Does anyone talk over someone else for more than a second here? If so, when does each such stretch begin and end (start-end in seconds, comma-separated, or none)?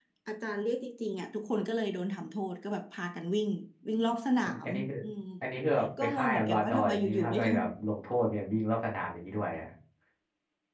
6.0-7.6